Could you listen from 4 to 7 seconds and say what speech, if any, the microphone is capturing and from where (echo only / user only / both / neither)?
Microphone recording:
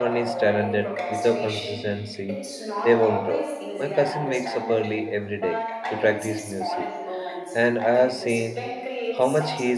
both